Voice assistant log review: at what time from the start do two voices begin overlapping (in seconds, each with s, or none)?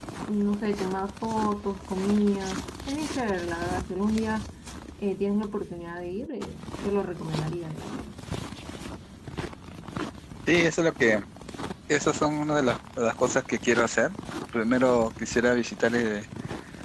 none